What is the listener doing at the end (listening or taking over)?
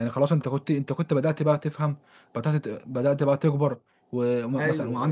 listening